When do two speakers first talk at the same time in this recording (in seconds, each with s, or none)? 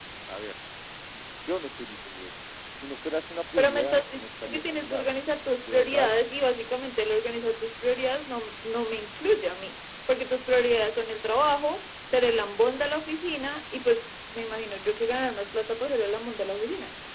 3.6 s